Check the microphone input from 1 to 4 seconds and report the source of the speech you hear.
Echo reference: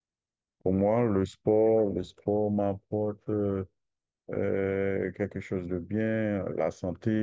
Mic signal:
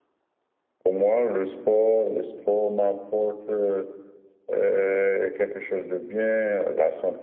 echo only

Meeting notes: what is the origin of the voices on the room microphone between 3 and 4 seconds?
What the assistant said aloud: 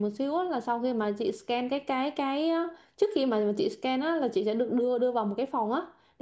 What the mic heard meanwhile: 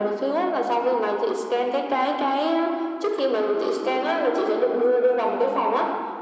echo only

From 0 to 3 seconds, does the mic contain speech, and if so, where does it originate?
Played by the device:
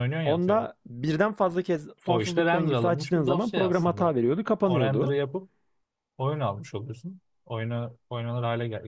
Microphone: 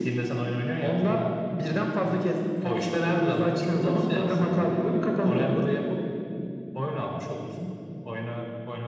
echo only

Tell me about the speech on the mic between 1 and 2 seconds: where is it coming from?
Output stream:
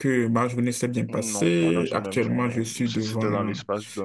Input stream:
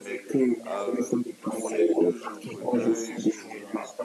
both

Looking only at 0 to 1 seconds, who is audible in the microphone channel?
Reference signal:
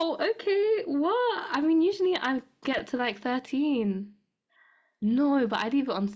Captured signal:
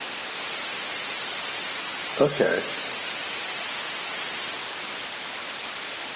neither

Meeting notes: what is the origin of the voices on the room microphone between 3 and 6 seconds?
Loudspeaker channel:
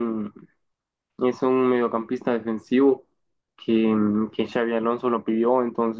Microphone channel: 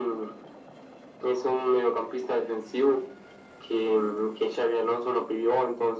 echo only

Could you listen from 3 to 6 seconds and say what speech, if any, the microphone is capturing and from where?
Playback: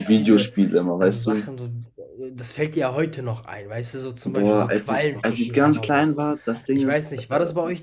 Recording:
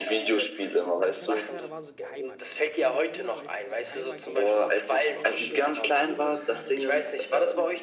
both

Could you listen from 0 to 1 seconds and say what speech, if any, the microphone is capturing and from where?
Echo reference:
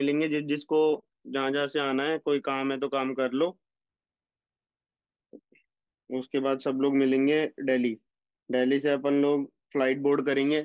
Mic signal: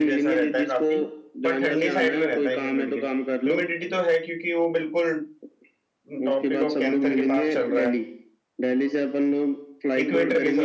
both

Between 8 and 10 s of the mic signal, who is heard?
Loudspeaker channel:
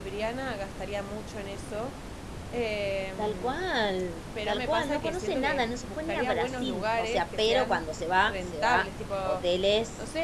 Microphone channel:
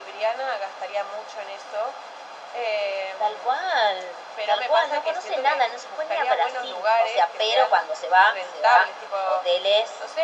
echo only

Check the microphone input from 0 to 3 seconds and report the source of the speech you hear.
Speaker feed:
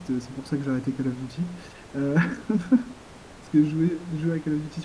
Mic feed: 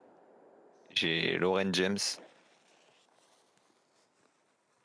user only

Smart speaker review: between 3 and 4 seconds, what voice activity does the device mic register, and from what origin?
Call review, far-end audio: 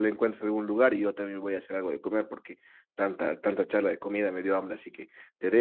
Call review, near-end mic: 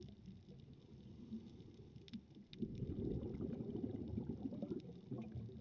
neither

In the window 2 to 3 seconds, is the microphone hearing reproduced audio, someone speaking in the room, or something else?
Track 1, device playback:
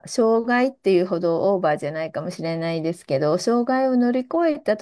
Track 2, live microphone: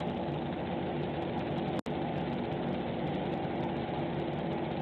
neither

